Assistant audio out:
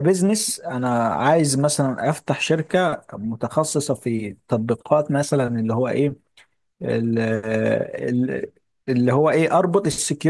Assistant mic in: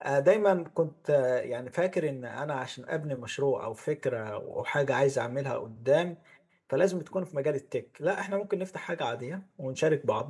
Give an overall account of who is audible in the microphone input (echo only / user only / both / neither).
user only